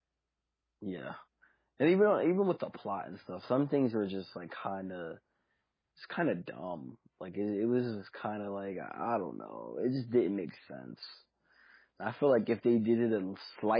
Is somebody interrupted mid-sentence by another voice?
No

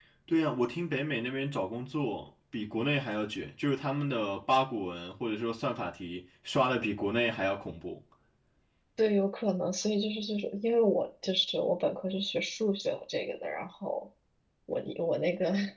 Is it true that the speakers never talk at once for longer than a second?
Yes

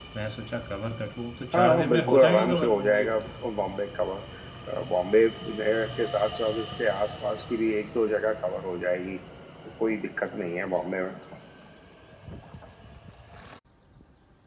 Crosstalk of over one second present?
Yes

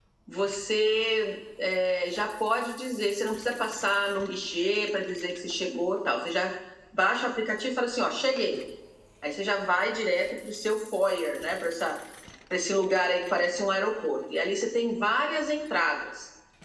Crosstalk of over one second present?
No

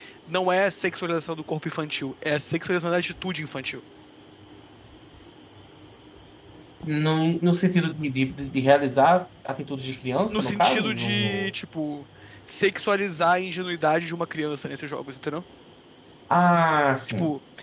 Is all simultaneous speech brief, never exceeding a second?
No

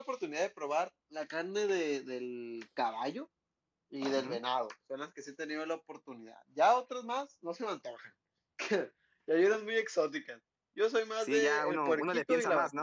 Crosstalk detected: Yes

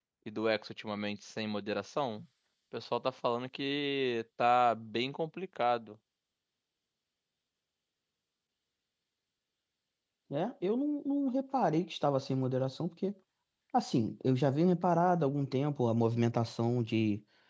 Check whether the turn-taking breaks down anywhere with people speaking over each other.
No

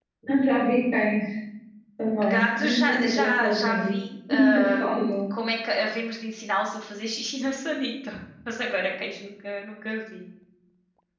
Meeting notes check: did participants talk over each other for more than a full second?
Yes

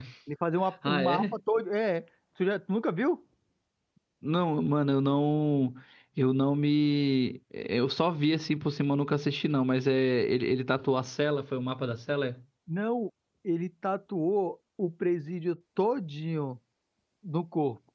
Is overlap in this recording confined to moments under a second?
Yes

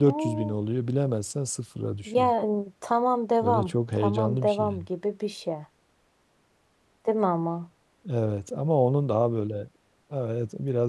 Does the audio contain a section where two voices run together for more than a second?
Yes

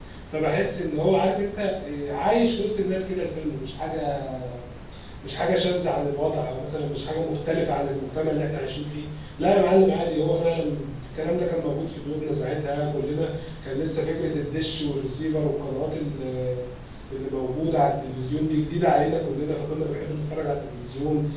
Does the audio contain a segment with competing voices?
No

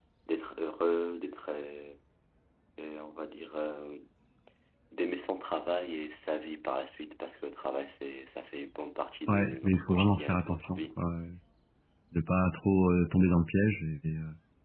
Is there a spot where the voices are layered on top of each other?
Yes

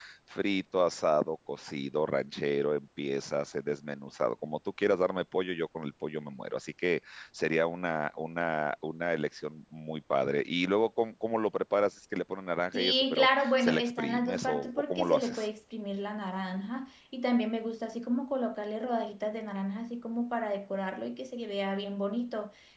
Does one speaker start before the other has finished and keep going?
Yes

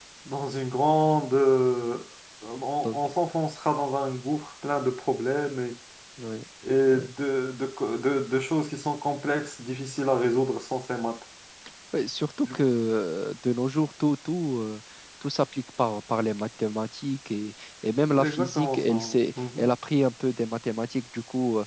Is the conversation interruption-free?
No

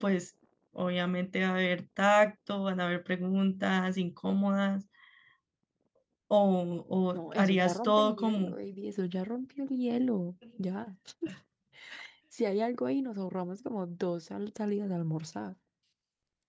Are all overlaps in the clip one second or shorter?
No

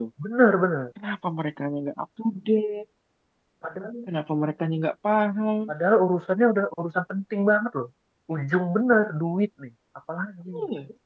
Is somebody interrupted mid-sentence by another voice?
No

